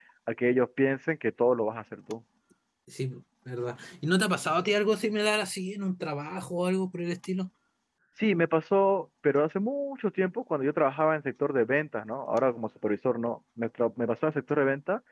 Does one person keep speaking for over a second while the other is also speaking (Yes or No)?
No